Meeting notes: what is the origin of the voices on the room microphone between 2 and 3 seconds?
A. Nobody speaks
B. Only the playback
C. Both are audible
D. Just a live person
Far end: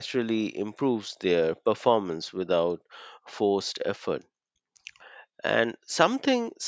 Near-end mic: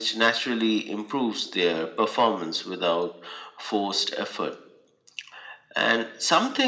B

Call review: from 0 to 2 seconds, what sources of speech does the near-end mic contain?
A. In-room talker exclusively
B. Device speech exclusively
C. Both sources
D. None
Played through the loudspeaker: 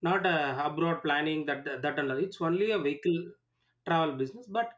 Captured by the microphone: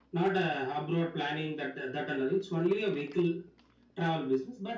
B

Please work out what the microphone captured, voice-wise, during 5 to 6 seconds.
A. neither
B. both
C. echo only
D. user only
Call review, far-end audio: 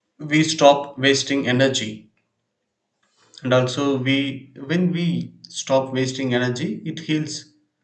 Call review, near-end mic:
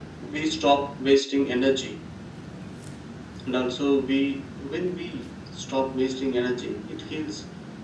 C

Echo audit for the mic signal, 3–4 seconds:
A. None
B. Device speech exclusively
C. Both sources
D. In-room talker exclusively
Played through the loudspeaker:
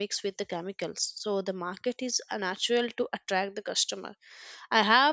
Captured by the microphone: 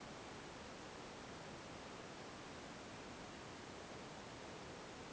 A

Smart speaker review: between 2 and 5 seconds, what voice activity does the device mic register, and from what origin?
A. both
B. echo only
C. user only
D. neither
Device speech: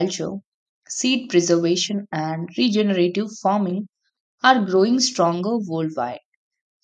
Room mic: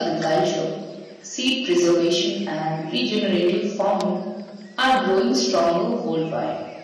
B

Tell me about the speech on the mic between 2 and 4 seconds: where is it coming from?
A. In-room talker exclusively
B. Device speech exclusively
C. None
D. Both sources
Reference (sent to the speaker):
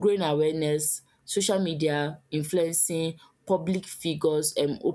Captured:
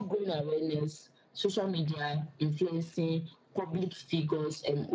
B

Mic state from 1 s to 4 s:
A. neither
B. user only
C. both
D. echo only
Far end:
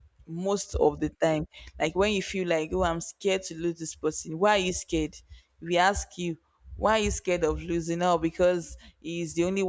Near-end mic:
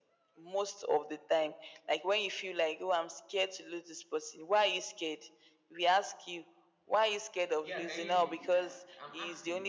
D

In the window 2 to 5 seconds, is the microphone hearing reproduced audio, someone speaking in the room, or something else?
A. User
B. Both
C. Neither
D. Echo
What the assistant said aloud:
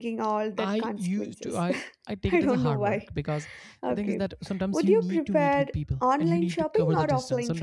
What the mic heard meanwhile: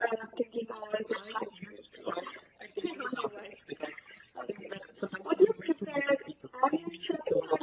D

